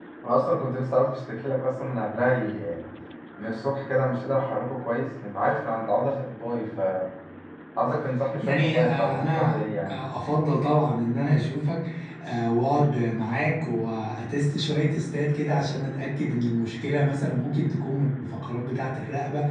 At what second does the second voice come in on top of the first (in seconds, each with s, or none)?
8.4 s